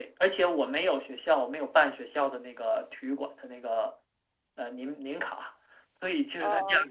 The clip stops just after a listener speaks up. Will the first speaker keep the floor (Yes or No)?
Yes